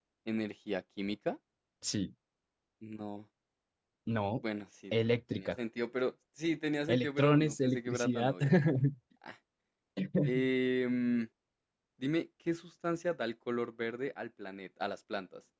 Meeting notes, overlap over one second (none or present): present